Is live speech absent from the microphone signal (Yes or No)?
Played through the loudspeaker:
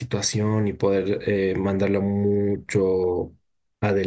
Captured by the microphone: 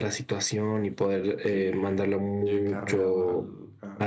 No